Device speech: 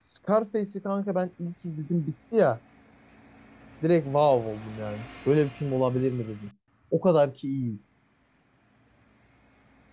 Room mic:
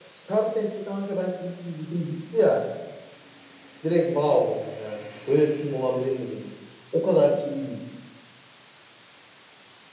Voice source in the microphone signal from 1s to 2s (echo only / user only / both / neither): echo only